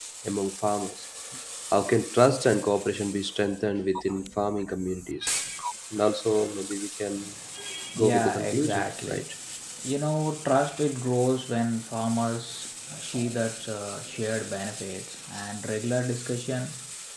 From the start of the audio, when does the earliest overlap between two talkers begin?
8.0 s

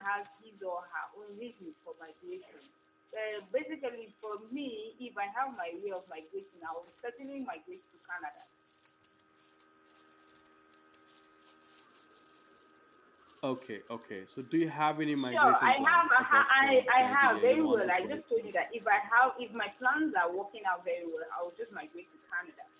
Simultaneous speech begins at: 15.2 s

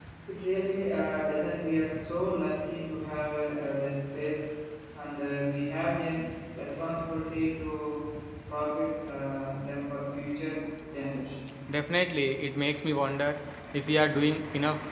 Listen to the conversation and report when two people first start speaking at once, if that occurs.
none

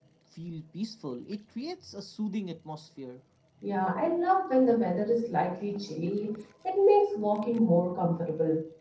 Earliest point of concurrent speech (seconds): none

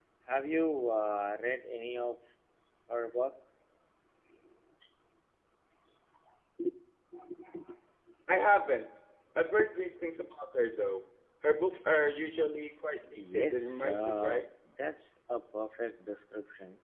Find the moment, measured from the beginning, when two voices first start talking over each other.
13.1 s

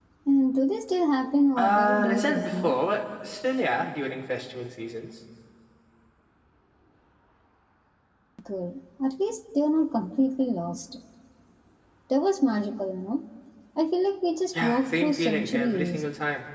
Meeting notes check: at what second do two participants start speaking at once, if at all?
1.6 s

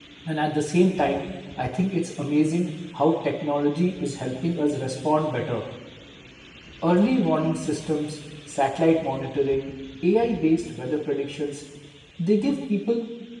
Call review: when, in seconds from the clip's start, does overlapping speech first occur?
none

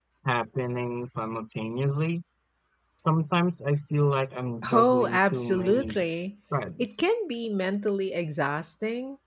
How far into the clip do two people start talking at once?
4.7 s

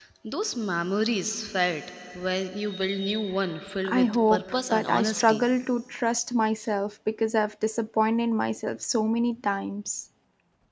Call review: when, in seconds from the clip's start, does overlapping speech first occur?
3.9 s

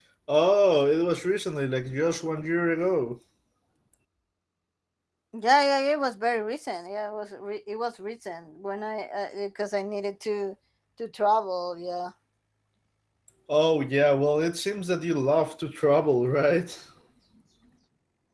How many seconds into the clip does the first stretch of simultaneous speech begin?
none

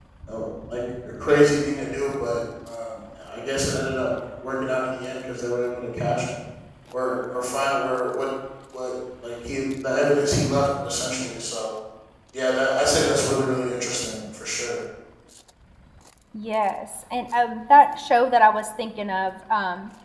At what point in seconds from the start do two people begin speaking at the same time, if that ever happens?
none

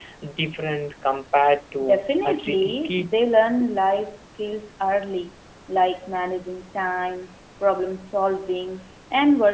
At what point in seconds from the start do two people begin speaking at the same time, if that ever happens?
1.8 s

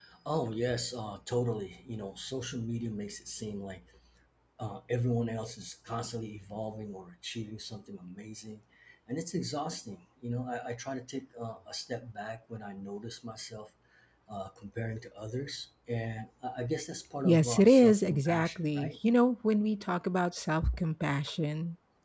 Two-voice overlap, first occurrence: 17.2 s

